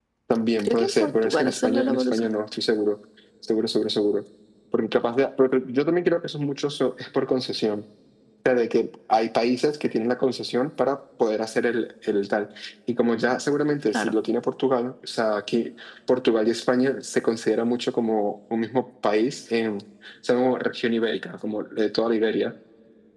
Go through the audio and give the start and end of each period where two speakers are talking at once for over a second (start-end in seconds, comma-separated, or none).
0.6-2.3